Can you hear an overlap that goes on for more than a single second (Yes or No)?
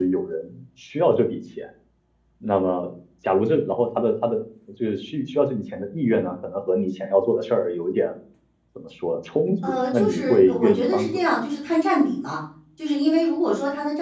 Yes